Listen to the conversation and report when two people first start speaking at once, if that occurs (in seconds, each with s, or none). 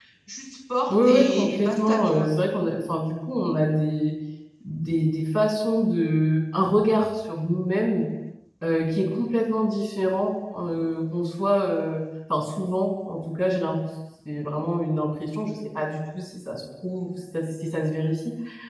0.9 s